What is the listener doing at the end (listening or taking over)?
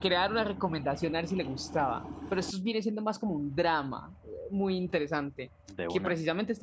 listening